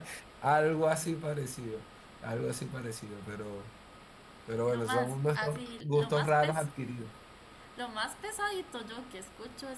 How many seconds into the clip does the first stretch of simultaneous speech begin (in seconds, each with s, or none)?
4.7 s